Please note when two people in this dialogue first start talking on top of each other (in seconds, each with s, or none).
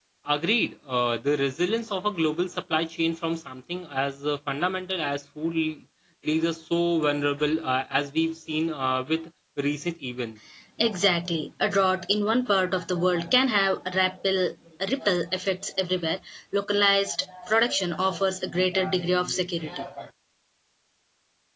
none